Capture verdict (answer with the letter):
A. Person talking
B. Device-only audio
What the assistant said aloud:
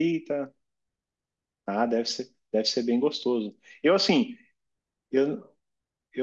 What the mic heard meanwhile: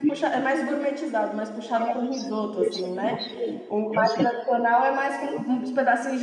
A